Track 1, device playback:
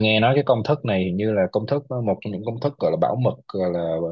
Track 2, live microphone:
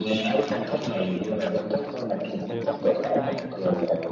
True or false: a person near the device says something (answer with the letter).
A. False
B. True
B